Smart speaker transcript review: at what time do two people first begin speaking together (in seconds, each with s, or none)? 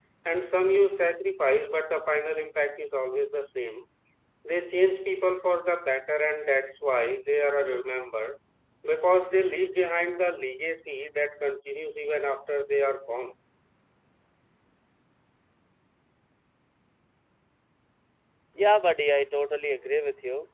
none